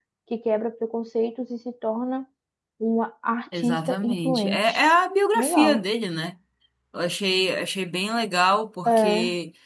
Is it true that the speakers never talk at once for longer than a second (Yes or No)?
No